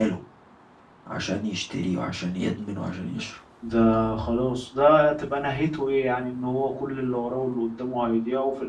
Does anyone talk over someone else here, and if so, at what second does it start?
none

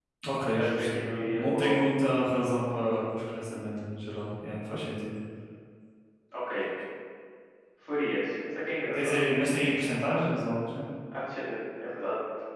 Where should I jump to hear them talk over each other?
0.6 s

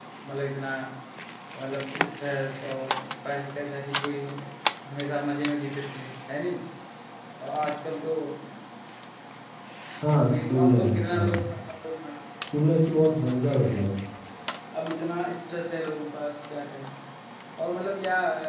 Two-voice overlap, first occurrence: 10.2 s

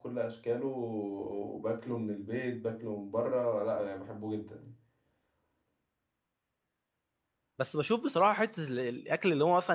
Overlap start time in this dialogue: none

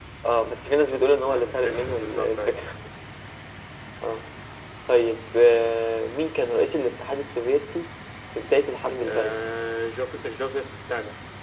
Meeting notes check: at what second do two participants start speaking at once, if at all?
1.3 s

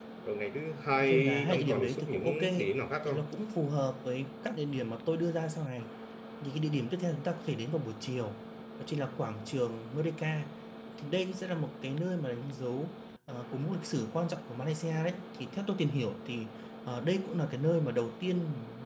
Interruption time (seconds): 1.0 s

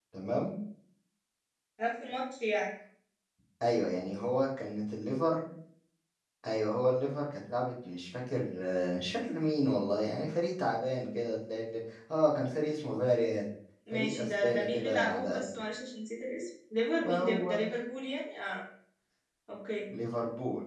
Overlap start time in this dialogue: 13.9 s

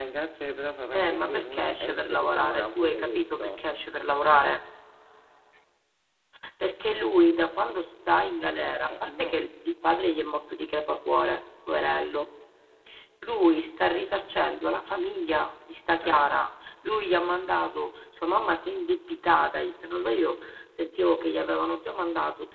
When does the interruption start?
0.9 s

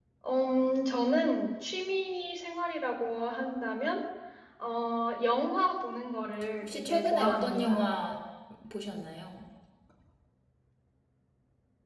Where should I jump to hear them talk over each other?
6.6 s

